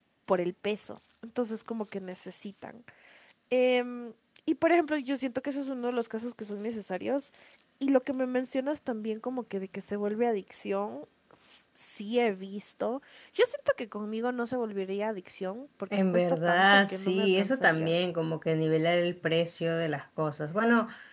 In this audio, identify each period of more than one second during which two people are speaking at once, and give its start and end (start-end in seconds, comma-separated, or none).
16.1-17.9